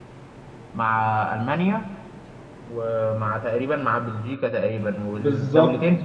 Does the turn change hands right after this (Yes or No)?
No